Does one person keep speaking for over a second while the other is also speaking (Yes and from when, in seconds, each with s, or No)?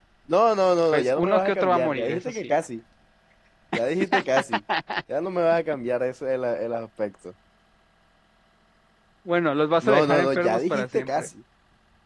Yes, from 0.9 s